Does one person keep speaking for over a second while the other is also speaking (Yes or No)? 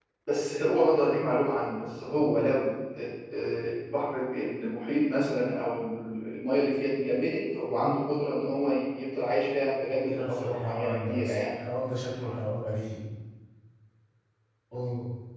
Yes